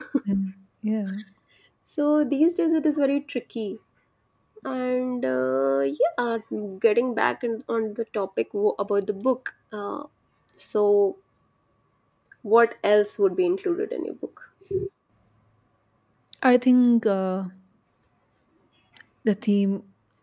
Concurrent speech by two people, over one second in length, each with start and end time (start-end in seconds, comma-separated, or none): none